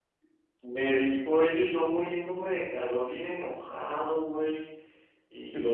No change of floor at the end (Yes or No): No